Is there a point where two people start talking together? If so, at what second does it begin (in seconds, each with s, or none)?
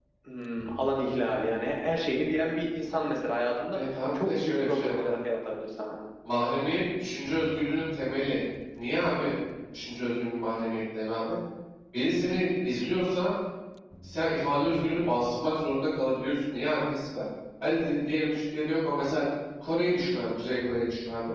3.7 s